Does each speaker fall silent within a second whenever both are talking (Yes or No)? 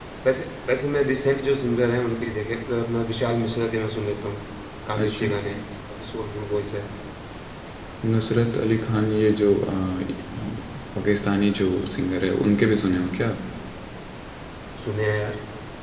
Yes